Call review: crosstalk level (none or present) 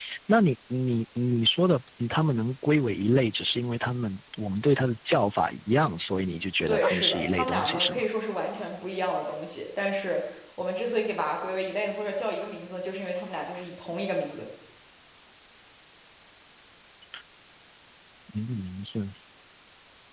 present